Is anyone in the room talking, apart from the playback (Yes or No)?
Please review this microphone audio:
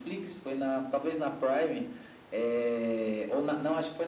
No